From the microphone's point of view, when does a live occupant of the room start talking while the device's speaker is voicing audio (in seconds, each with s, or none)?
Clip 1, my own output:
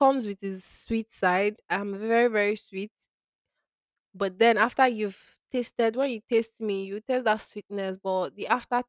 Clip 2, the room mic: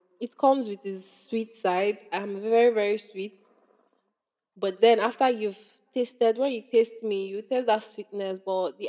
none